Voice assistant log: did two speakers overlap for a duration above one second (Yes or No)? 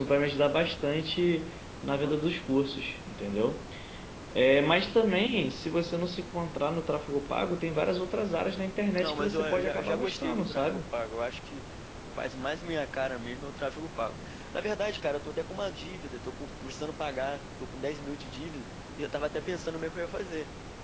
Yes